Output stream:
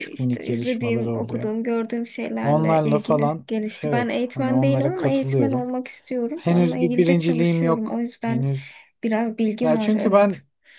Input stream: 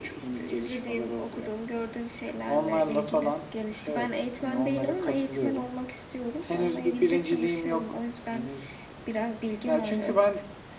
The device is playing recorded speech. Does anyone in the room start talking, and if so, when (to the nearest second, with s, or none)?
none